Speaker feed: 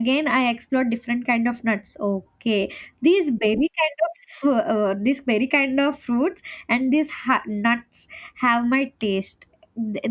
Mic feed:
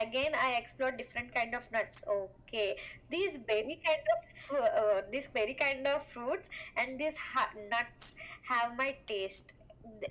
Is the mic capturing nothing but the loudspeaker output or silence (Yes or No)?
Yes